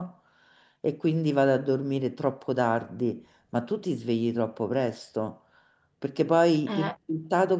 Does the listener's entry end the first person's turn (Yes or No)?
No